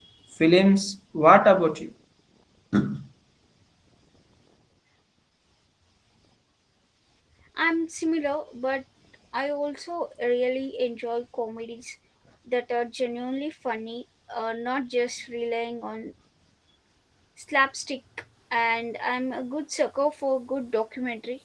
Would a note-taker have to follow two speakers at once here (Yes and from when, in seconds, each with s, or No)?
No